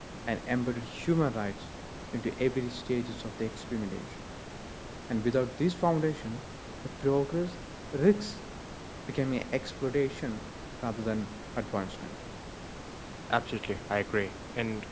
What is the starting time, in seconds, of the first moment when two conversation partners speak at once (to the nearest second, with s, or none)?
none